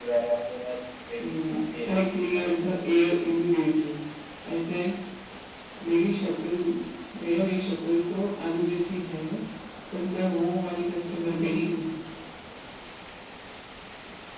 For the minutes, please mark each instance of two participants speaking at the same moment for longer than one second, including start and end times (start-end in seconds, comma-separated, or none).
1.2-2.6